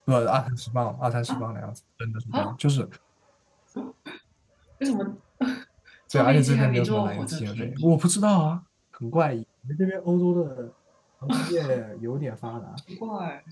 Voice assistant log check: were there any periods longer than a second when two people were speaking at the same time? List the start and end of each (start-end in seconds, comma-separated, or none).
6.1-7.9